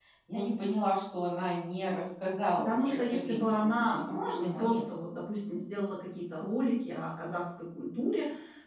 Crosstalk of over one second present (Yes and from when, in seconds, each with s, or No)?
Yes, from 2.6 s